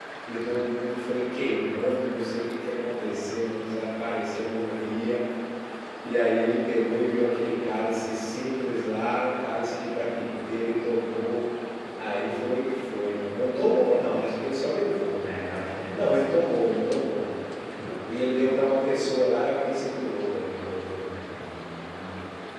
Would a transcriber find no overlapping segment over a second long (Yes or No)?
Yes